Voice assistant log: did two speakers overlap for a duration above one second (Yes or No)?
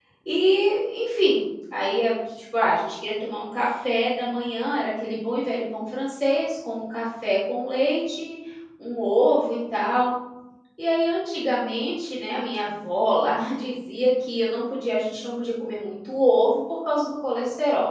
No